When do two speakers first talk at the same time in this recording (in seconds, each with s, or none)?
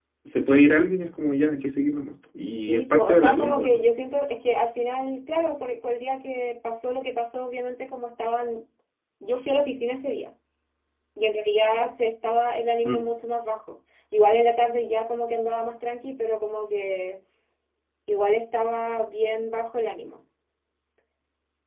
2.6 s